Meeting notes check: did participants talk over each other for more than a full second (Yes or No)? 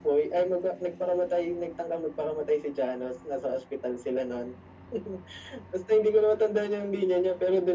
No